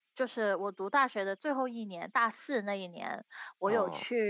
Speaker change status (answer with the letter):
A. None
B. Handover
A